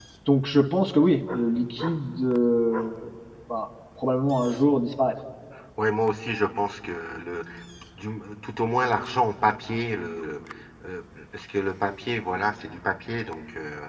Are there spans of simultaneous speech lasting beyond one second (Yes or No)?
No